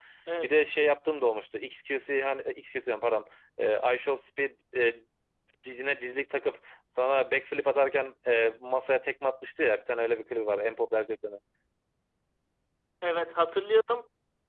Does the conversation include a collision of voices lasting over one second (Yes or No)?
No